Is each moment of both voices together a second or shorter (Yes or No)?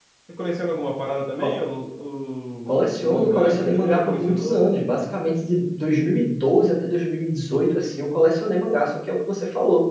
No